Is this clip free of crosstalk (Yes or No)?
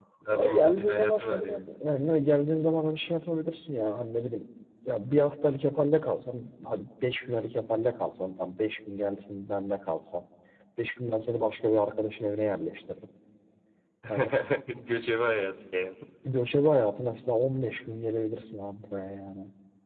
No